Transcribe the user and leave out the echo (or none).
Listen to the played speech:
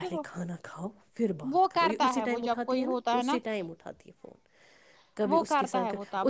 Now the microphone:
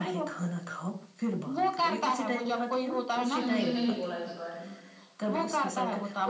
اس نے مجھے نہیں بولا اس بارے میں